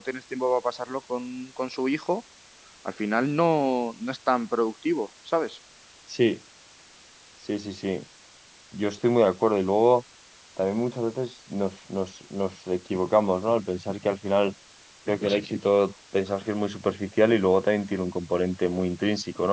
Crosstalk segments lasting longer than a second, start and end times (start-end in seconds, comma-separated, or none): none